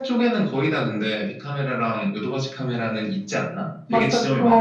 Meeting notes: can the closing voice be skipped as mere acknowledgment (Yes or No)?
No